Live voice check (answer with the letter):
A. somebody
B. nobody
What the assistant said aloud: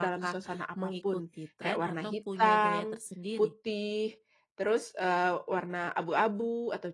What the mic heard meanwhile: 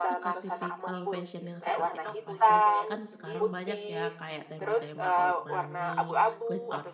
A